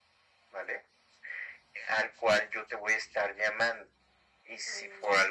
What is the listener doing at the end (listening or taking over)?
listening